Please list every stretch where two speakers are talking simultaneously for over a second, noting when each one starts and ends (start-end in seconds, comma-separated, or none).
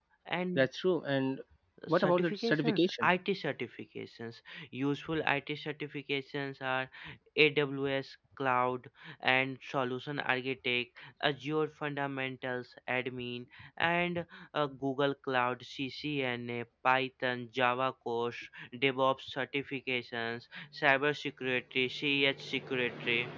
1.9-3.1